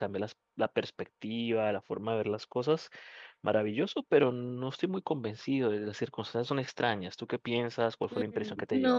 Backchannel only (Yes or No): No